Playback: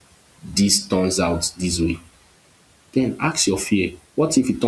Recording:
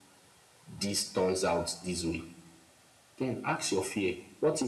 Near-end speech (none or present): none